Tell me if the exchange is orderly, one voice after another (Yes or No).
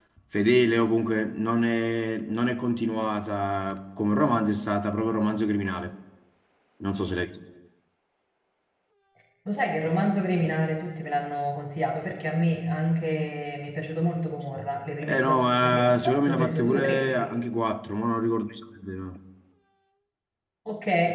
No